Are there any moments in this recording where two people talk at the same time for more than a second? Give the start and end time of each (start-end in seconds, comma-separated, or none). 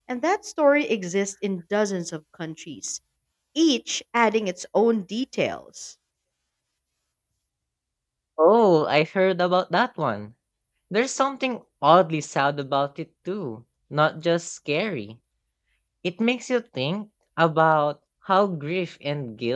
none